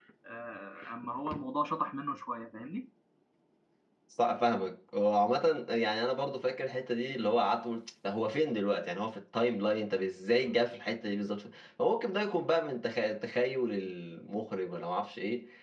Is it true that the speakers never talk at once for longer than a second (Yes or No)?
Yes